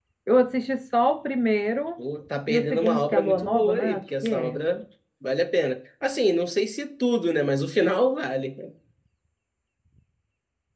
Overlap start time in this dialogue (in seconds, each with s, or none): 2.5 s